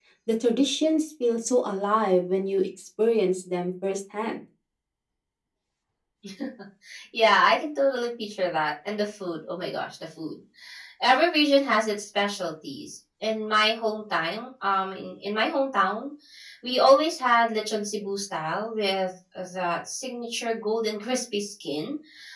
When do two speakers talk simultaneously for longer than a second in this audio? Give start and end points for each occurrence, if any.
none

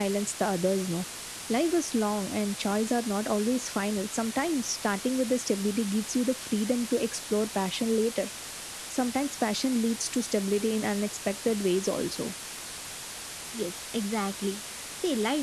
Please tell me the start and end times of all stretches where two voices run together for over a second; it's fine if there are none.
none

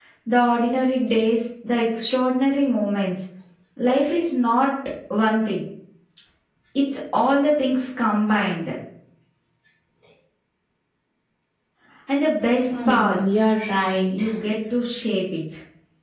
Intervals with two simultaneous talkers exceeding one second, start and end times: none

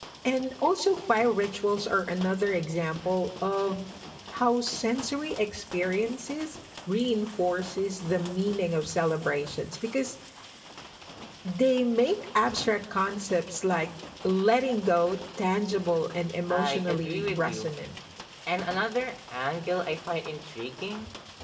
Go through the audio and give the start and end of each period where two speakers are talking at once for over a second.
16.5-17.7

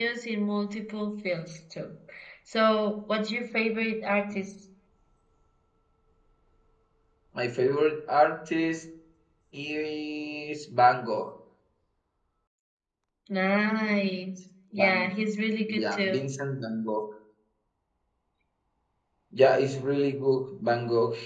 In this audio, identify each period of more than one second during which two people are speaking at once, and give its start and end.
none

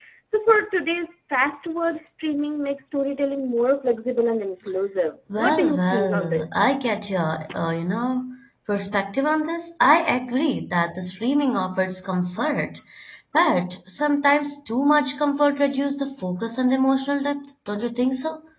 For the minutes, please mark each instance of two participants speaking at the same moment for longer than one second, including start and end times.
5.3-6.7

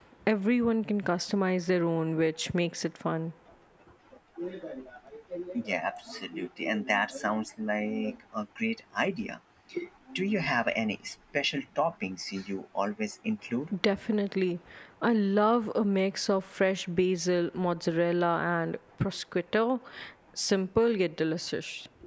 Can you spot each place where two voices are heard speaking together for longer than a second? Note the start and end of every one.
none

